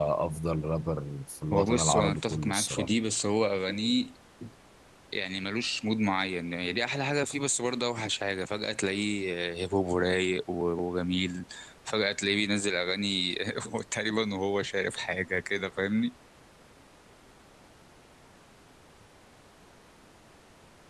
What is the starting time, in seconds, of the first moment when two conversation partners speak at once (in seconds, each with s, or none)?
1.5 s